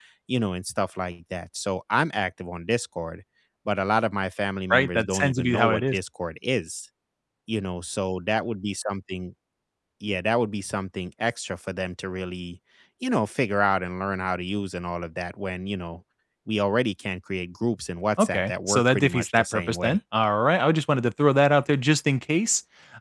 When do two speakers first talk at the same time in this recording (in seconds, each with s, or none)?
4.7 s